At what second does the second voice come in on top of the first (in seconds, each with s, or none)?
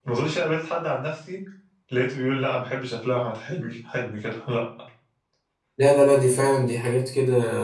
none